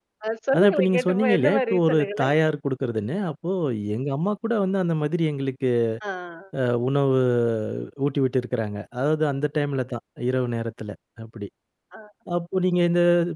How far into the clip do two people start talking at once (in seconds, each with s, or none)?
0.5 s